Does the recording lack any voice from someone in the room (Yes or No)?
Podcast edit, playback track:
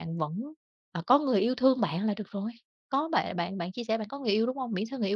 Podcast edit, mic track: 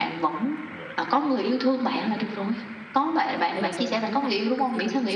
No